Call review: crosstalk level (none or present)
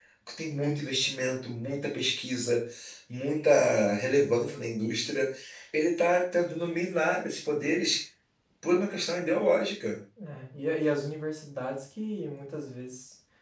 none